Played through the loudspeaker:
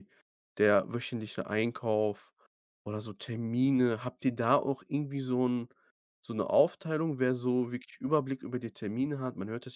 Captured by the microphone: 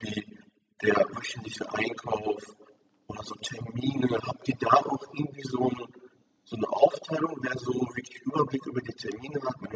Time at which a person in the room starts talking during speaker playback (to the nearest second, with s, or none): none